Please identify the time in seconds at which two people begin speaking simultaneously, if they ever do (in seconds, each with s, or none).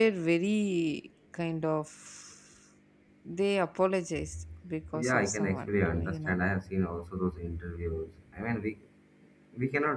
4.9 s